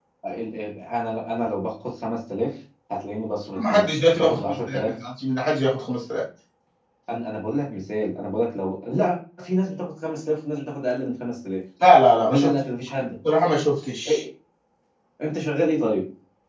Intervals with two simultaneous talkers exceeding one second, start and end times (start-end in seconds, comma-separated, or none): 3.6-5.0